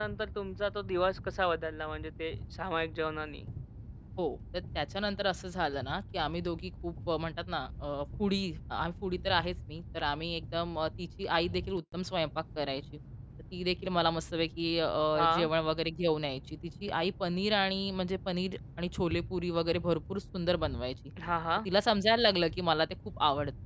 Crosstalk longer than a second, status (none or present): none